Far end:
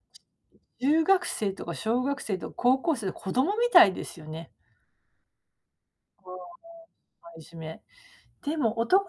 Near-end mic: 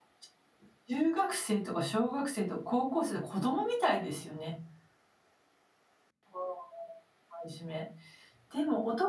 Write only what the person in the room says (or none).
none